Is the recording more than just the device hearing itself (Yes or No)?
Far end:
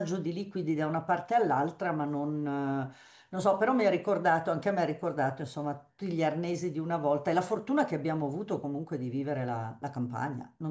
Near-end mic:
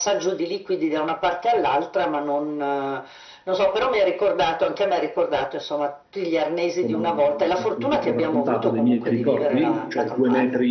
Yes